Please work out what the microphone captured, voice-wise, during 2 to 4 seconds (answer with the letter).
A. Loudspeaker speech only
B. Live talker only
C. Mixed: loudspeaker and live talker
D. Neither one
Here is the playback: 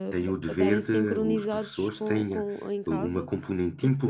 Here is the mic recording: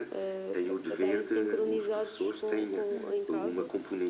C